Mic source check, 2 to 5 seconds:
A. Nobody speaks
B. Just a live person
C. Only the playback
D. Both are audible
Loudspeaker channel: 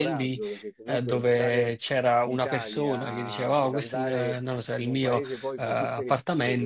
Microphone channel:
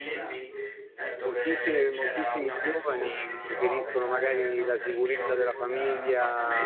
D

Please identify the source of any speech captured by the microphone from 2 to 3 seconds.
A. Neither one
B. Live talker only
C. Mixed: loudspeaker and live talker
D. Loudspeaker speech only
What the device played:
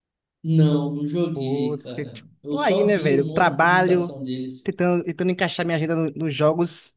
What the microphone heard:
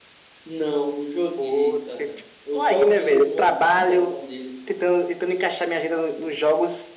D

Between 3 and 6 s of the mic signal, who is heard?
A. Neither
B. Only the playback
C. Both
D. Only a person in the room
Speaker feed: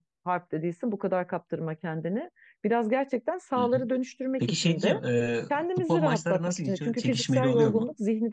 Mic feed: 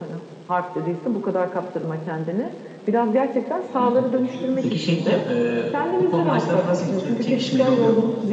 C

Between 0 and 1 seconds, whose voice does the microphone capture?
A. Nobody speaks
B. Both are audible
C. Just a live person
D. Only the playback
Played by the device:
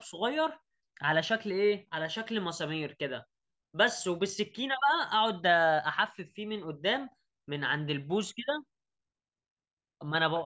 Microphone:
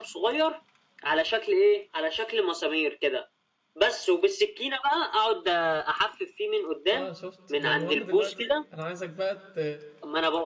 D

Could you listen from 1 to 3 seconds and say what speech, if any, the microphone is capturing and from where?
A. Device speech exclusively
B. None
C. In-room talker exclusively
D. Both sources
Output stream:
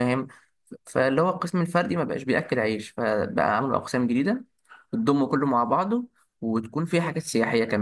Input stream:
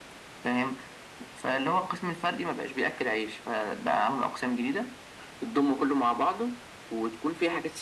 A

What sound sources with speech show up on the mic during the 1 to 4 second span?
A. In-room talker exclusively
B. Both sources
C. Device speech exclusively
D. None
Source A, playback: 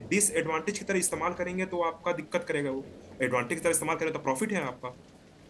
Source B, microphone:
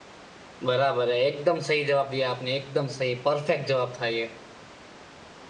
A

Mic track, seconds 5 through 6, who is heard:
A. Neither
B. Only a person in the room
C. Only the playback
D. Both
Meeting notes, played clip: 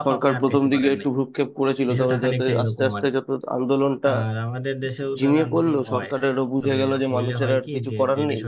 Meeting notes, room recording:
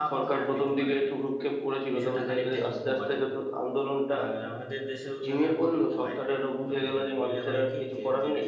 C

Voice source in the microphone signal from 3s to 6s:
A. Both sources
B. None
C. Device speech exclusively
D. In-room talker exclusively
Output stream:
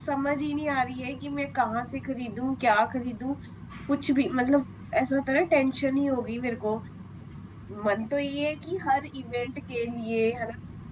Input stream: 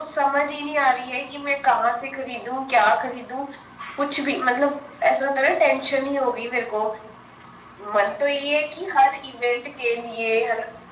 C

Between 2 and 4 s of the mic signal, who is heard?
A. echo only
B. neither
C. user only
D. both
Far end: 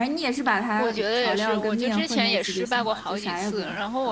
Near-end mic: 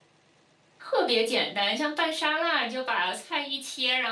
C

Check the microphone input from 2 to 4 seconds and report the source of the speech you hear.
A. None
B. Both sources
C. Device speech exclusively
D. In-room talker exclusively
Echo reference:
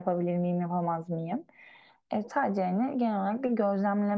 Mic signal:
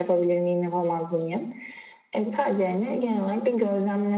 C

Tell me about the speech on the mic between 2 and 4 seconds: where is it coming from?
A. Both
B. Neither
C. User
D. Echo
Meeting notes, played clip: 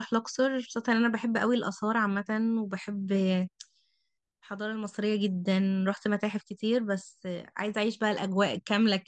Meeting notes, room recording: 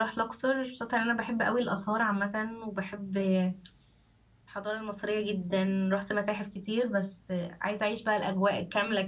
D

